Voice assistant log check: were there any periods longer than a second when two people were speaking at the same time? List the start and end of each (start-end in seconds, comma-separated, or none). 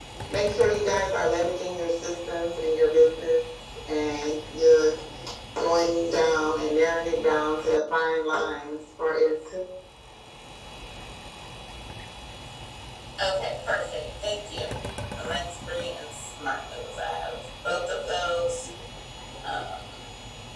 none